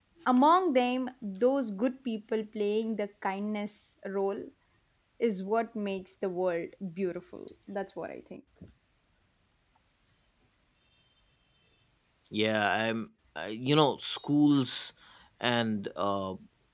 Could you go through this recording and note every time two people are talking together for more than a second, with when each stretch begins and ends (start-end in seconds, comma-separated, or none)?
none